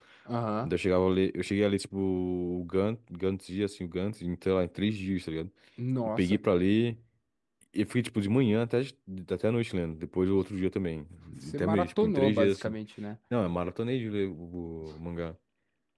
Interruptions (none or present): present